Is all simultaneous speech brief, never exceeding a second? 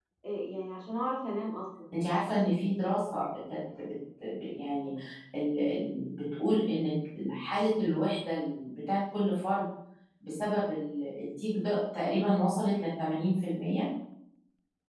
Yes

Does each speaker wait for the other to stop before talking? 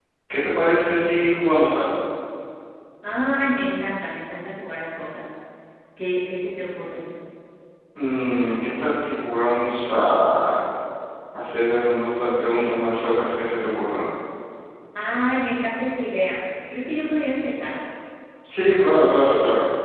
Yes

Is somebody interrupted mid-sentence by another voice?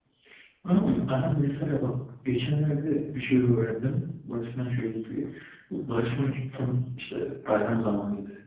No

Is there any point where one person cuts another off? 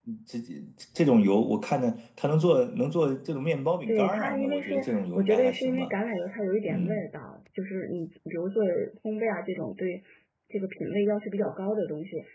Yes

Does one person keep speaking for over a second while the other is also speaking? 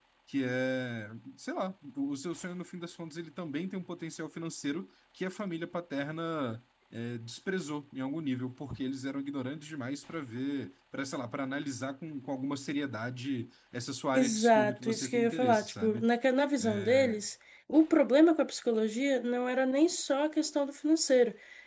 Yes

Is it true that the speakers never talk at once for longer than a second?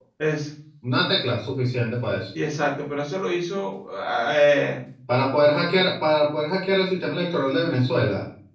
Yes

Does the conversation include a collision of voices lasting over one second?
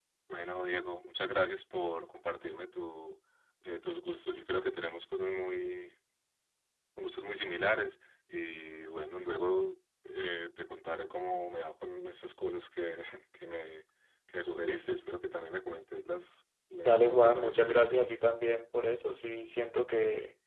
Yes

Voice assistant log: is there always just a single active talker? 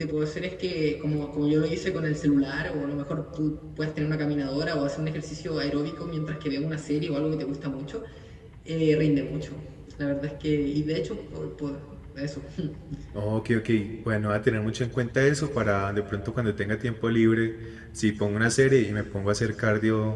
Yes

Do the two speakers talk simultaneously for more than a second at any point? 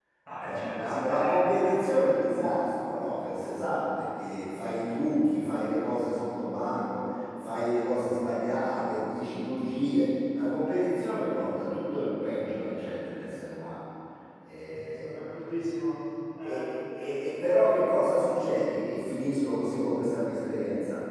Yes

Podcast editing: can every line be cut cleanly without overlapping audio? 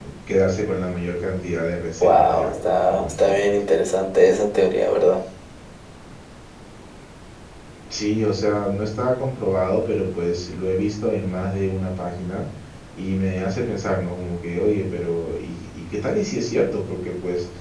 No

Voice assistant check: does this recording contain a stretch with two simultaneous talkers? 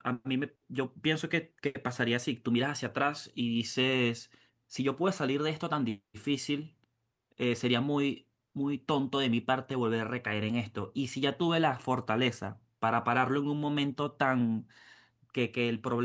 No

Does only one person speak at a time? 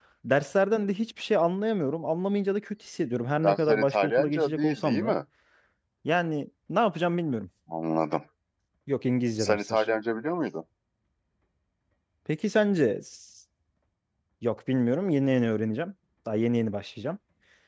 No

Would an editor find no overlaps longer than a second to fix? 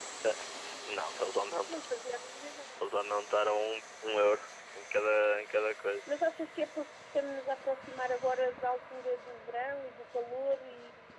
Yes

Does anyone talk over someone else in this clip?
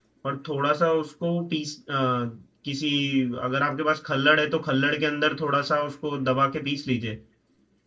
No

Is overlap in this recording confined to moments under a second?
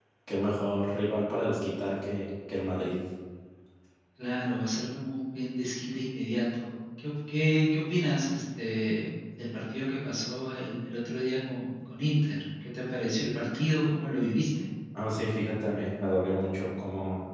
Yes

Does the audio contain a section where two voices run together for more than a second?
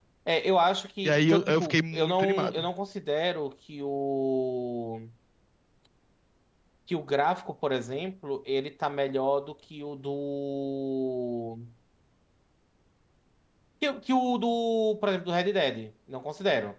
Yes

